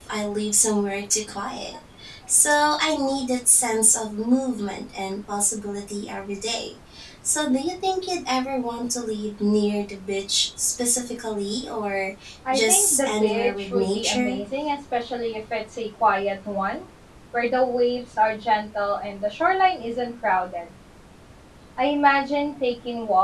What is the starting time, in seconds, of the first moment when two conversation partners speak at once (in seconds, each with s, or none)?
12.5 s